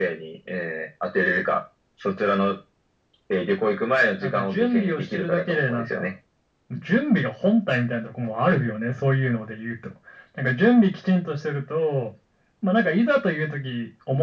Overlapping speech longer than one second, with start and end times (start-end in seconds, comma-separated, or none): 4.2-6.0